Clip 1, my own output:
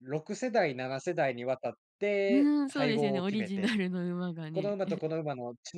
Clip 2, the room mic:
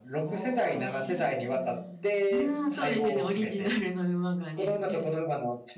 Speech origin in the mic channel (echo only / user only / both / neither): both